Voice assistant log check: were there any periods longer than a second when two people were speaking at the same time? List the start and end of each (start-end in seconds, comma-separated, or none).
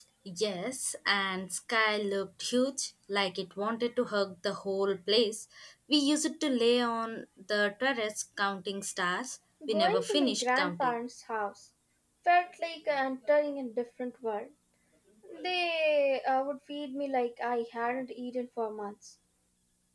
9.7-10.9